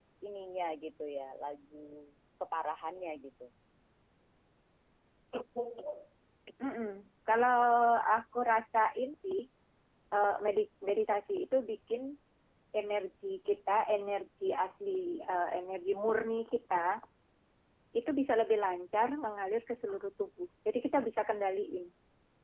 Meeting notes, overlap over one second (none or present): none